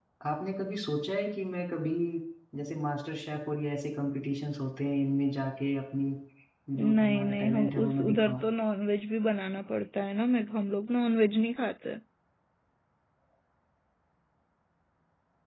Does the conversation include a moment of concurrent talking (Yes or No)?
Yes